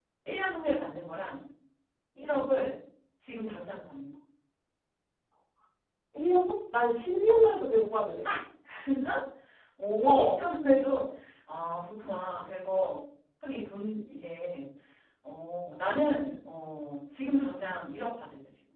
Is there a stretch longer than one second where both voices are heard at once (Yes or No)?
No